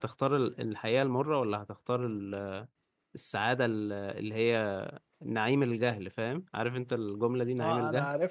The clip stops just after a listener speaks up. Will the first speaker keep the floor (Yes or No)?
No